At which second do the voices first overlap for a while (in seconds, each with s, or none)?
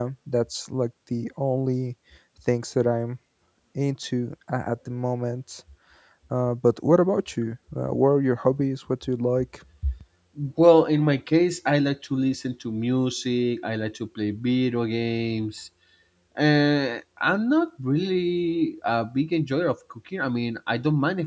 none